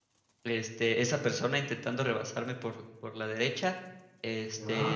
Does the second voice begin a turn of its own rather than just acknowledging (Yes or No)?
No